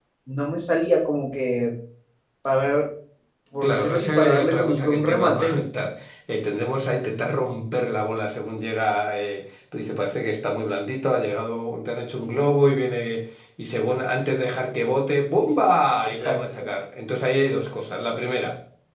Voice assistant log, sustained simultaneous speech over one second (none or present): present